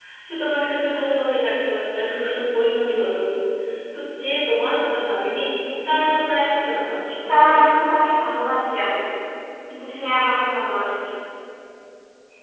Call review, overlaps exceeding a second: none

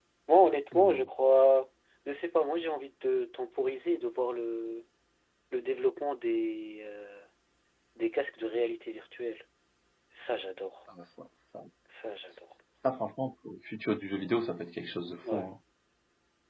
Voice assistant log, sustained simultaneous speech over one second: none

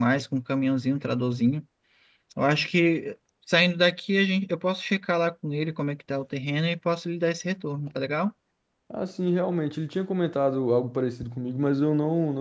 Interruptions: none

